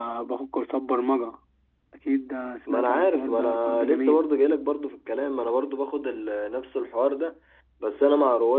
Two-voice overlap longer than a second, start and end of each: 2.7-4.2

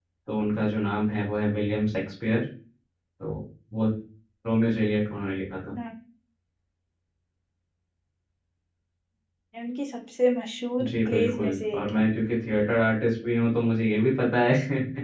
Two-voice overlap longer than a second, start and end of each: 10.8-12.1

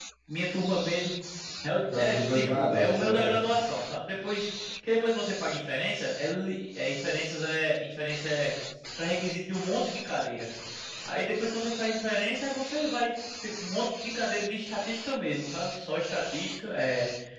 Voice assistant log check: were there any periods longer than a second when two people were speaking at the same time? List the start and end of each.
2.0-3.4

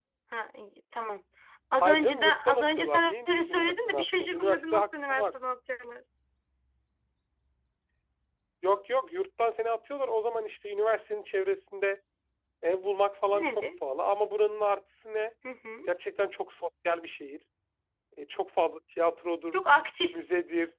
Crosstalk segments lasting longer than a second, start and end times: 1.8-5.2

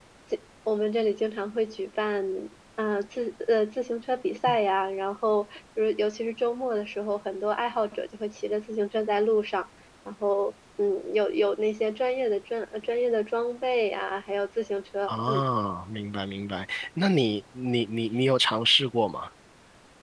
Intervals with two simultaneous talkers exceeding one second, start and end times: none

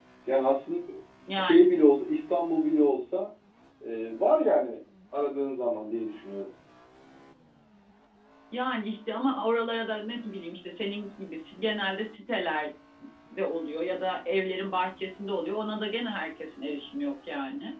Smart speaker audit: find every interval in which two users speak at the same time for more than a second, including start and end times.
none

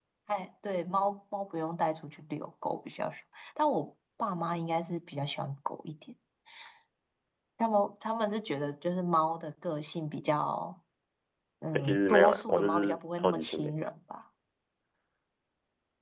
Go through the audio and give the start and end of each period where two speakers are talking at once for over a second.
11.7-13.7

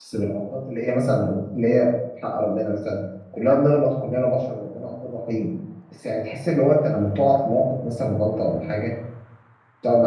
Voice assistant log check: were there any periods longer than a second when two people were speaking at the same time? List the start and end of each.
none

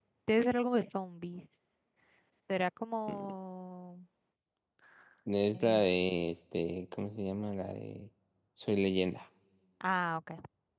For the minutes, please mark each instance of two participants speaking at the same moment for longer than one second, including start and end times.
none

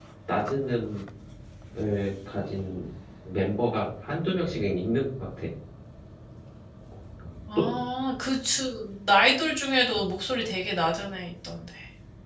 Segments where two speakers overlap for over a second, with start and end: none

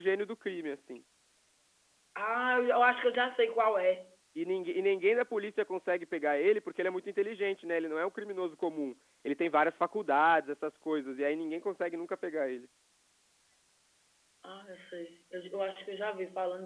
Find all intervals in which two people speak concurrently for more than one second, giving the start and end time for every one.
none

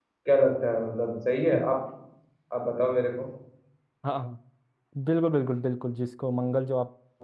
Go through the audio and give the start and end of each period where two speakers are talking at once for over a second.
none

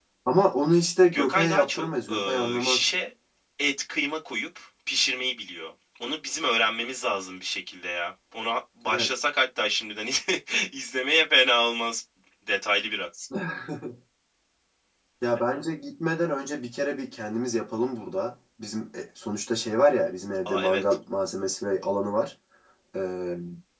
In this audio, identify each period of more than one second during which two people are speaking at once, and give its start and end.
1.1-2.9

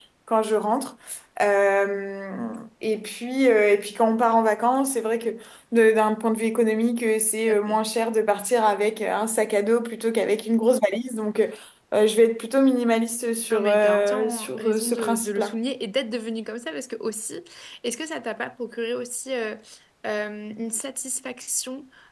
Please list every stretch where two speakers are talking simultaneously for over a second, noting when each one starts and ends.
13.5-15.6

